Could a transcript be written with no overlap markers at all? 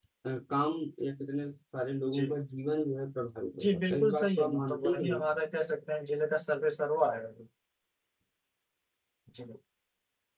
No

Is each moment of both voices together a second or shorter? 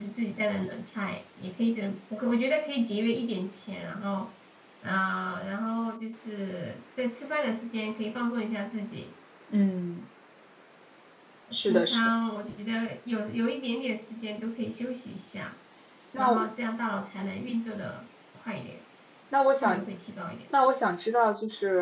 Yes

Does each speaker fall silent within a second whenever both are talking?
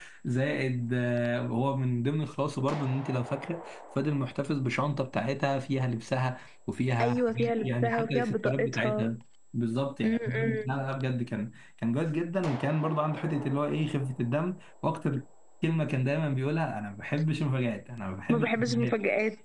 No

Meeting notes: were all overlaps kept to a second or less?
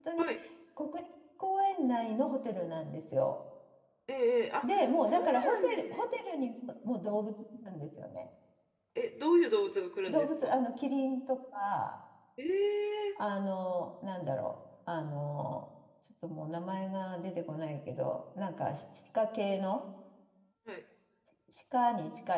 No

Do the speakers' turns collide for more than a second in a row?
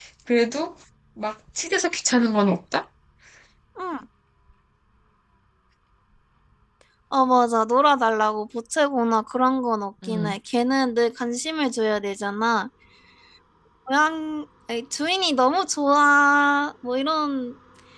No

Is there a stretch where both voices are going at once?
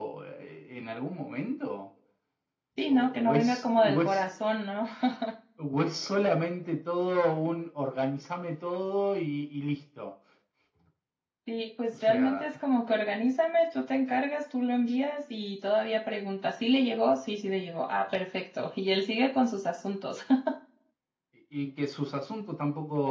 Yes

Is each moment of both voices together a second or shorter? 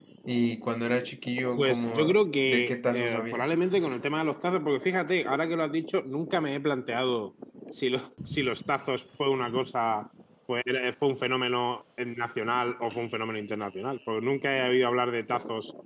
No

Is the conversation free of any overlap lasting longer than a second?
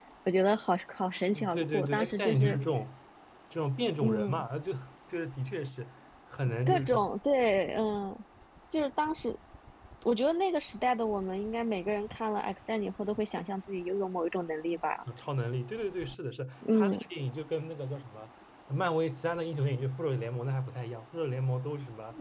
No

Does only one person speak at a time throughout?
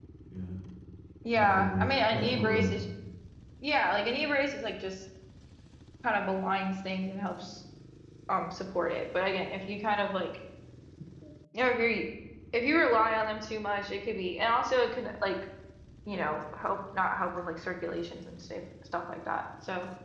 No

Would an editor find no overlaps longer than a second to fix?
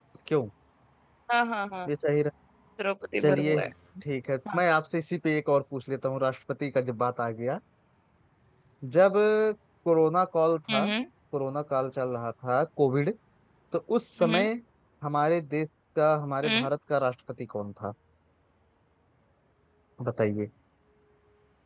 Yes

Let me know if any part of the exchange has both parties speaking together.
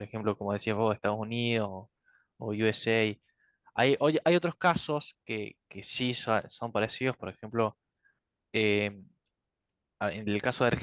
No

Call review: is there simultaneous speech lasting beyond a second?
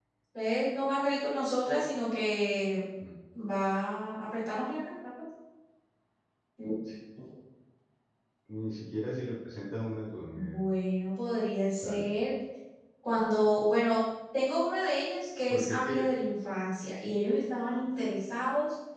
No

